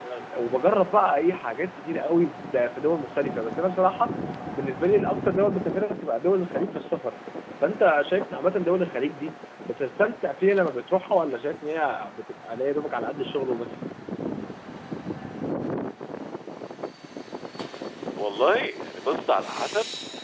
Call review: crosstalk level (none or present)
none